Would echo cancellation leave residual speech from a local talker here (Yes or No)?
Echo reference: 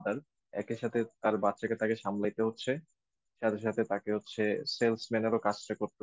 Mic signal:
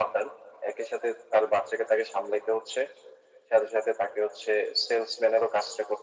No